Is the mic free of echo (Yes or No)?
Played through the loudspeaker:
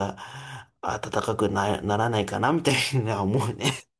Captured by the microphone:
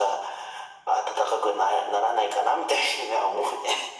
No